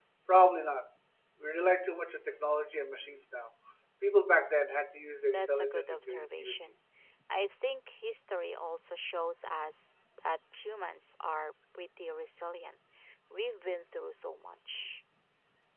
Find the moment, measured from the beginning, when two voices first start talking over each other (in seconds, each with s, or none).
5.3 s